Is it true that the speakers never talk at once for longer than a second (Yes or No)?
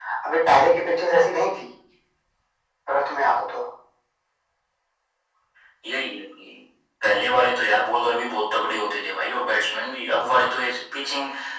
Yes